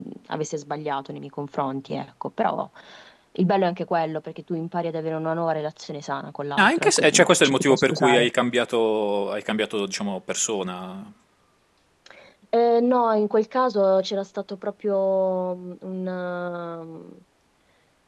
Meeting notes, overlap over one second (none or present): present